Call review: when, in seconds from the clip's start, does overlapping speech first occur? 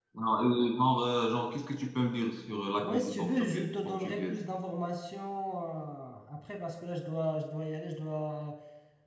3 s

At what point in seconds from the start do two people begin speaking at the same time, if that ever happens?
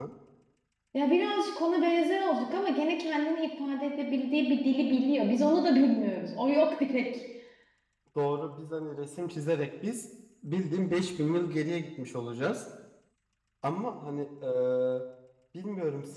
none

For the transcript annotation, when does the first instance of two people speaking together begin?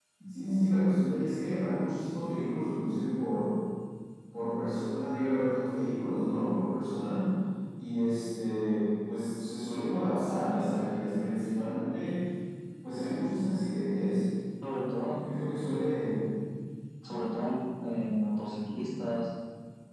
none

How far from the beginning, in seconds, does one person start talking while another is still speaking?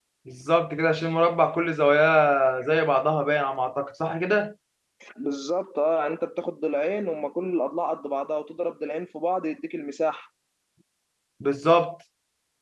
none

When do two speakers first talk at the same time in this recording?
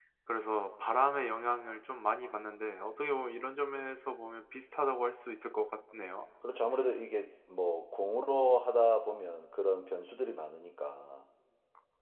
none

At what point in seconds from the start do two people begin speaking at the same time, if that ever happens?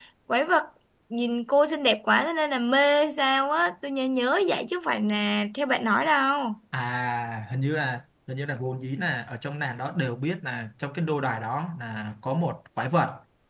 none

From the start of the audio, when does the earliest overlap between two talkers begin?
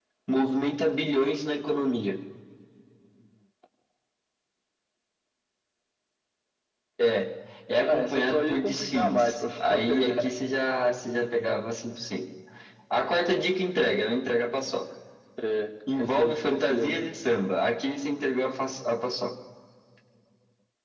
8 s

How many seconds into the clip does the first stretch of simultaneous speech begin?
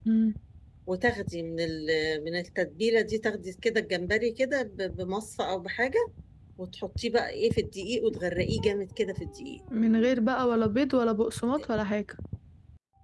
none

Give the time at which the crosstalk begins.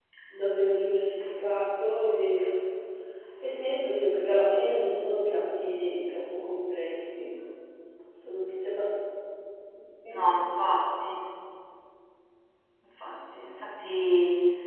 none

